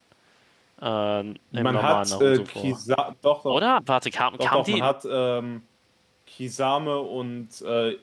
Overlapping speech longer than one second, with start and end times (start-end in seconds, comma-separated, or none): 1.5-2.8